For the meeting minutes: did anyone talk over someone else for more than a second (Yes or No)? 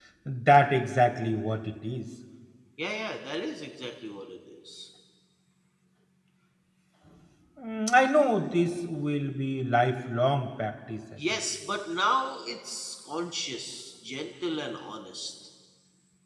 No